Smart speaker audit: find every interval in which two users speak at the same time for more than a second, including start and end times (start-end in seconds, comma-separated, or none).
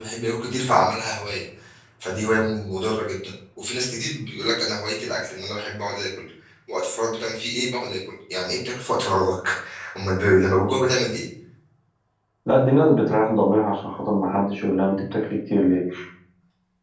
none